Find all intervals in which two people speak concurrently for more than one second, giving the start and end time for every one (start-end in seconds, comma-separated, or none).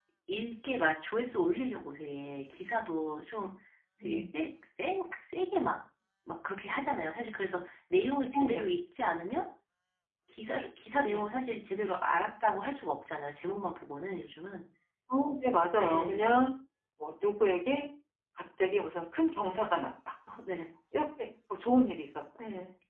none